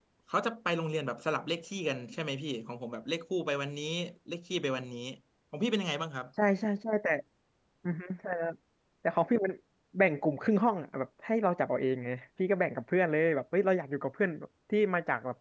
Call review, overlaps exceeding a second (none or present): none